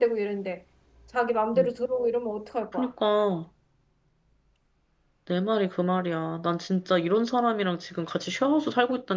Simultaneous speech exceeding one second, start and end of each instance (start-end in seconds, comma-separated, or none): none